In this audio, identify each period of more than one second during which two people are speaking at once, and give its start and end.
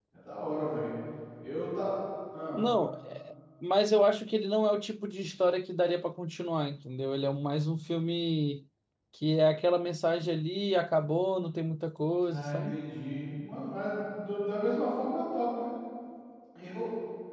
none

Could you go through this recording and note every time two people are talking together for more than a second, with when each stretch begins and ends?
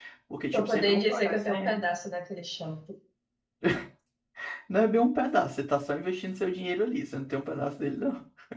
0.5-1.8

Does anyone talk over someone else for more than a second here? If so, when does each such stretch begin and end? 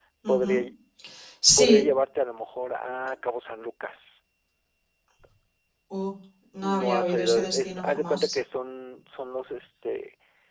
6.6-8.4

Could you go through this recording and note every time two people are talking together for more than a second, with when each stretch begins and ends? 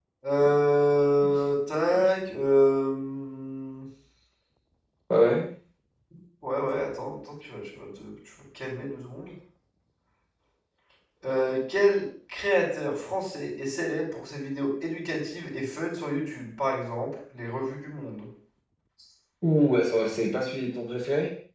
none

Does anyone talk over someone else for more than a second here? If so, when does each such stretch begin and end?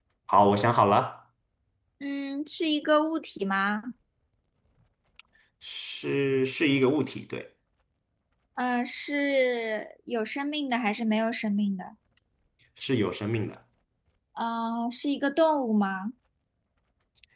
none

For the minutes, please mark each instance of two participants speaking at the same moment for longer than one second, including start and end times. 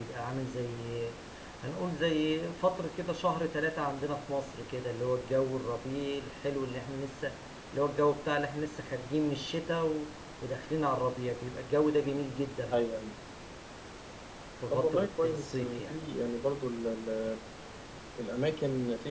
14.7-16.0

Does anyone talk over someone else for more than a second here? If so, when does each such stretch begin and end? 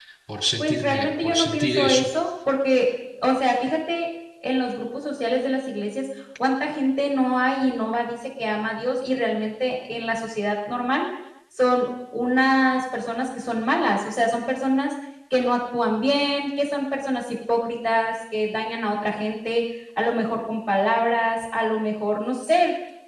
0.6-2.1

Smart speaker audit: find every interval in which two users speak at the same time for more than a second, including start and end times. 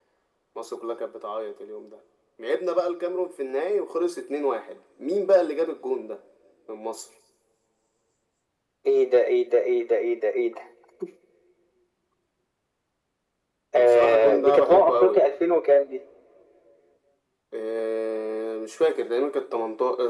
13.8-15.2

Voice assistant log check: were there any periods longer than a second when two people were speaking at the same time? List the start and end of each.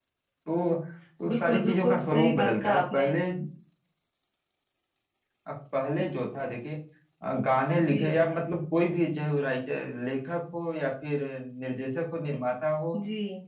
1.3-3.1

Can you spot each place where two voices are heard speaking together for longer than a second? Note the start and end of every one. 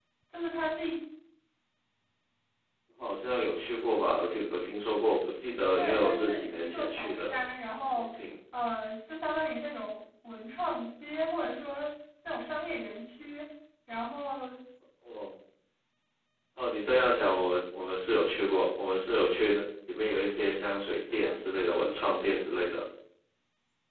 5.8-7.3

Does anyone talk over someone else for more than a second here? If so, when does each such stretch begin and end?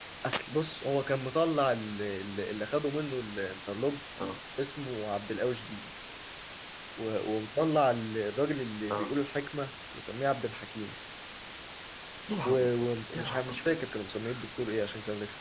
12.4-13.8

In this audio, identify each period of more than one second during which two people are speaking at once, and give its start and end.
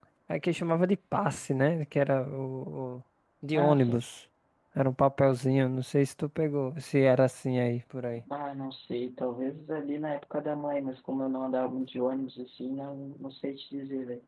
none

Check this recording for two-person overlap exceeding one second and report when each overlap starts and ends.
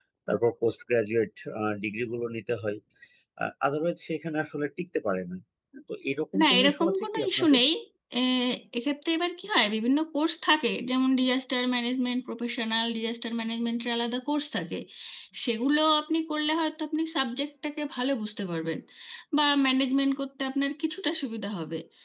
6.4-7.6

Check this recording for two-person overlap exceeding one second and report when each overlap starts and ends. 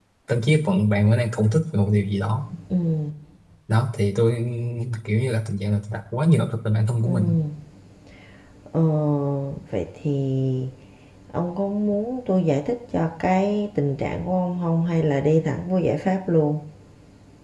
none

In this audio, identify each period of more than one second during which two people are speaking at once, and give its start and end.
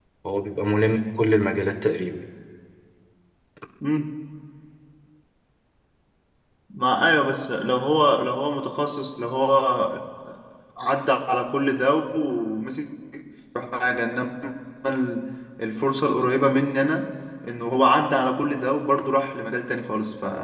none

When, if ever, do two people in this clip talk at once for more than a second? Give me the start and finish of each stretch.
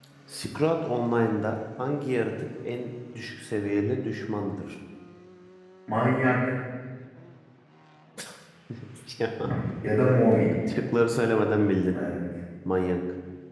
none

